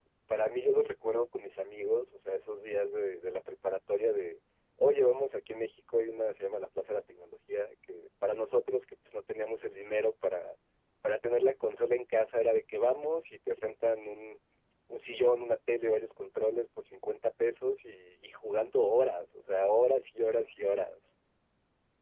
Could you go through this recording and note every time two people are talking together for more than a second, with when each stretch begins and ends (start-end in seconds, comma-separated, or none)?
none